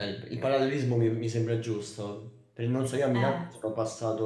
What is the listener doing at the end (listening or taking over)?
listening